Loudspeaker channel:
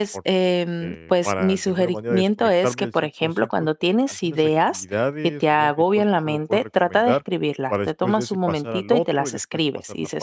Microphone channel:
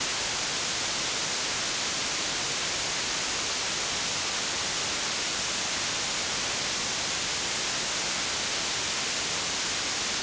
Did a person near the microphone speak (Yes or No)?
No